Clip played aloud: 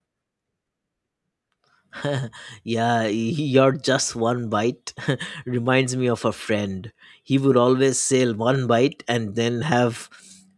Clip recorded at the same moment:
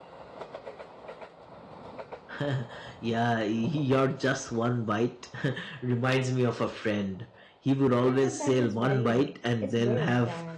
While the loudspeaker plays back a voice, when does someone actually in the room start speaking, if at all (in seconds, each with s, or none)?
8.0 s